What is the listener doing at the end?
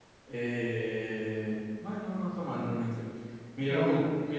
listening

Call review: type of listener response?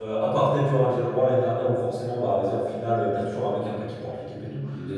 listening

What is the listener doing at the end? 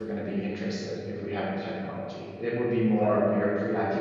listening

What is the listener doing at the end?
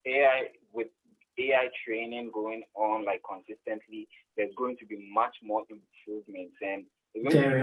listening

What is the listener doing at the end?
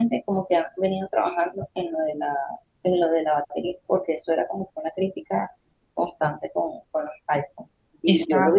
listening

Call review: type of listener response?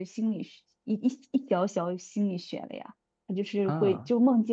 listening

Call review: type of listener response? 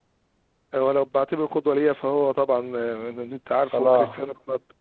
listening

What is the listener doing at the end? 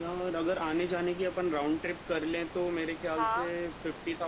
listening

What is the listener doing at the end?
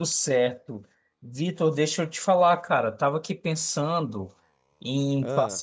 listening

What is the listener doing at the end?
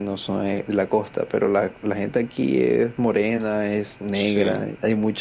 listening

